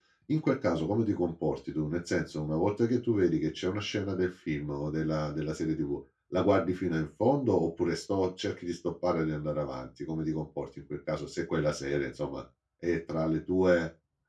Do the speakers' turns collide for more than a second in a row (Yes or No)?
No